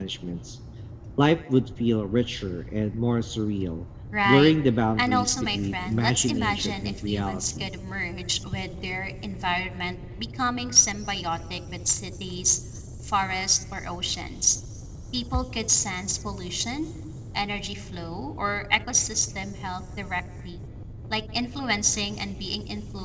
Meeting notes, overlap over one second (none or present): present